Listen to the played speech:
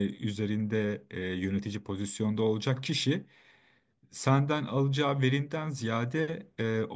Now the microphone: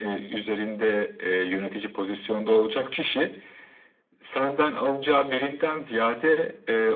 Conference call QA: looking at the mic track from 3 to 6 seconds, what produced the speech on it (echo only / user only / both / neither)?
echo only